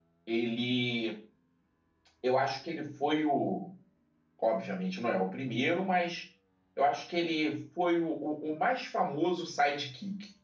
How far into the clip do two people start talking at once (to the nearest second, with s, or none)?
none